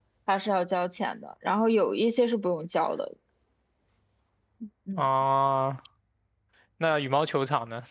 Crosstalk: none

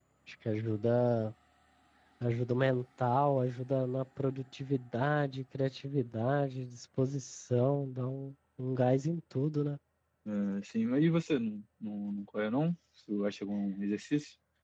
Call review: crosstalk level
none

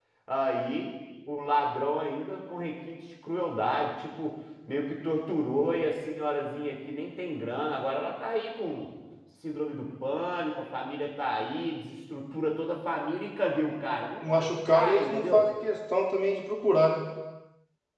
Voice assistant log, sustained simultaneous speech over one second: present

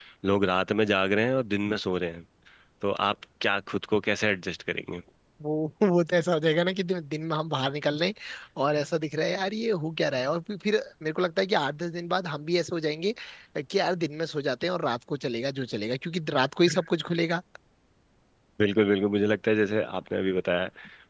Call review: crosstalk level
none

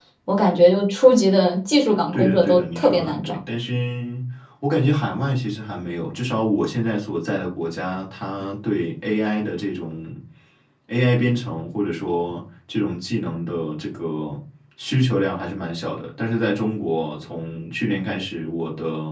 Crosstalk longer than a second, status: present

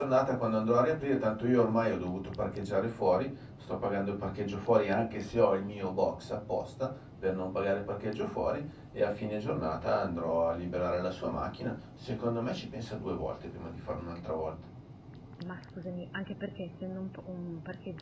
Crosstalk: none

